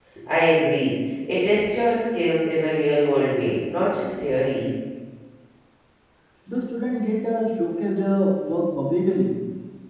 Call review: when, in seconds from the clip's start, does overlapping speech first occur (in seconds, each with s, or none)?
none